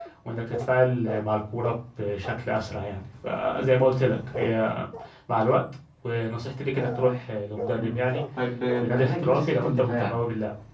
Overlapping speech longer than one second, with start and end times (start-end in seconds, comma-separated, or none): 8.8-10.2